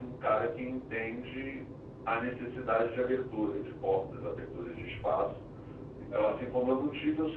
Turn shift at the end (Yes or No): No